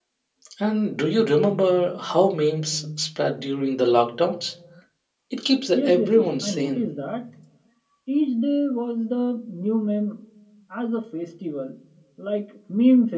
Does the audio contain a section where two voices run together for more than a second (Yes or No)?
Yes